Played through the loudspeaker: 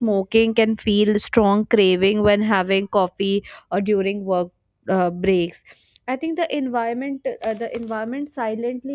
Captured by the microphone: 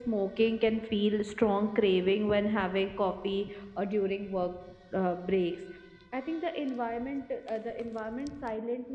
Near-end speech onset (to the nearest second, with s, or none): none